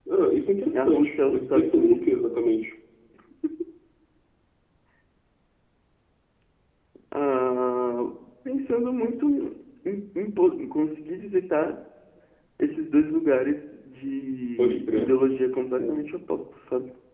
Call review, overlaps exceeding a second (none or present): present